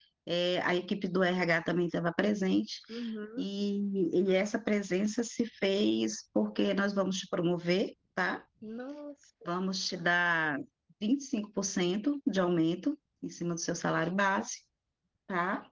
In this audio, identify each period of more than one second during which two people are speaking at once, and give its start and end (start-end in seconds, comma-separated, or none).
none